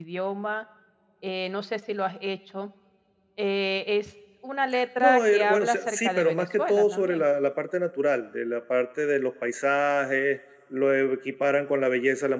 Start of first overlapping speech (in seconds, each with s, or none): 5.0 s